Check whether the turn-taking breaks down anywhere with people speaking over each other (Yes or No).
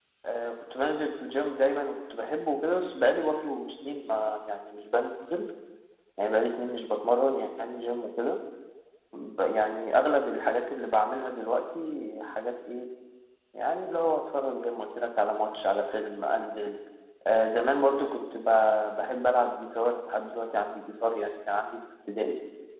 No